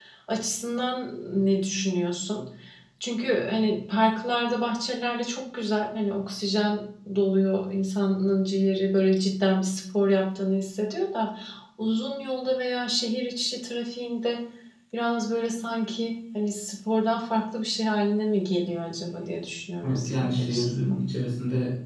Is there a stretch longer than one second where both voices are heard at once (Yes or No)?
Yes